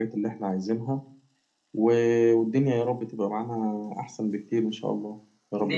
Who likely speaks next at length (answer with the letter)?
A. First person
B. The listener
B